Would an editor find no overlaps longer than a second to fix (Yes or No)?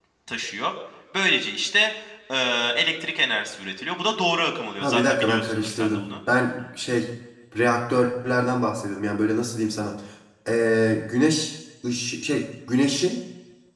No